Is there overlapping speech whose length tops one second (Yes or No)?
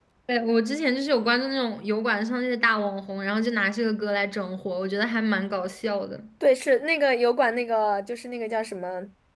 No